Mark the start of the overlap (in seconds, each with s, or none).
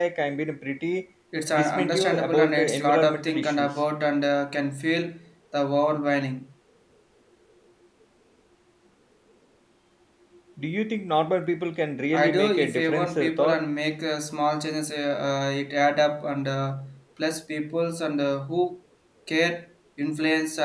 1.5 s